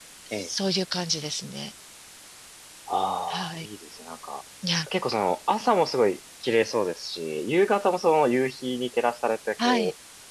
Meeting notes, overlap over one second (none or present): none